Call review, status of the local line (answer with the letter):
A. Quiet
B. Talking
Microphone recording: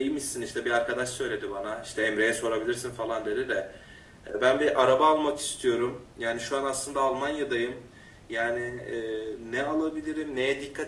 A